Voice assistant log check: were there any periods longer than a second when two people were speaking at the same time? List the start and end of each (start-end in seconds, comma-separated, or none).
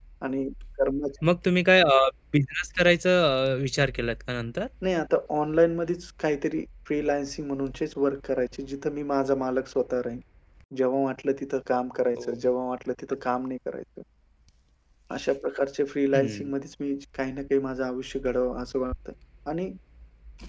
none